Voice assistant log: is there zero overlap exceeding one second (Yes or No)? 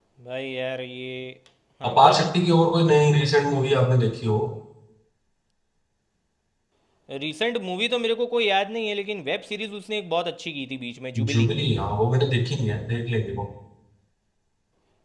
Yes